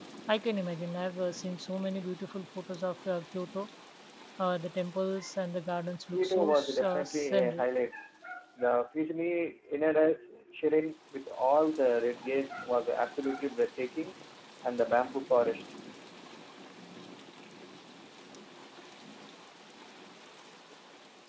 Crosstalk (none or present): present